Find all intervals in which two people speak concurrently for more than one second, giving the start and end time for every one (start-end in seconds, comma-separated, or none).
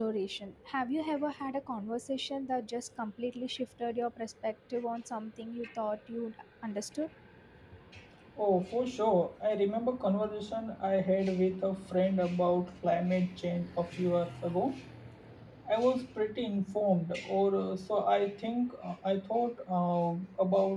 none